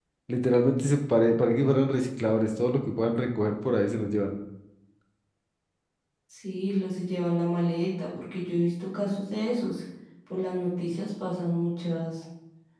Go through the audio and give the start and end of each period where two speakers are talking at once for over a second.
none

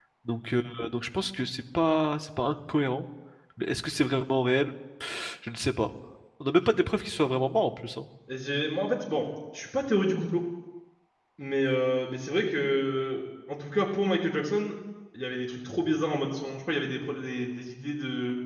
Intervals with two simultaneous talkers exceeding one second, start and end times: none

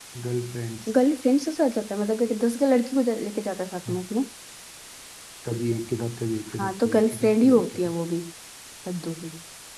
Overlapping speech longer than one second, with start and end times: 6.6-7.9

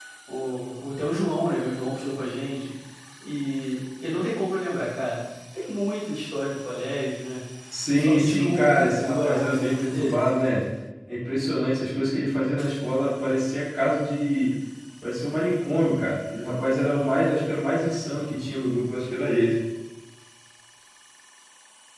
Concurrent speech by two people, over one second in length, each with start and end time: 7.9-10.2

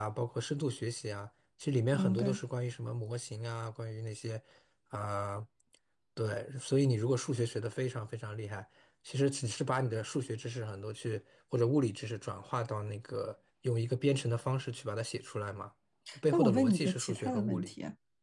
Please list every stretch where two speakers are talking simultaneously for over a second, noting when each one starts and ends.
16.3-17.7

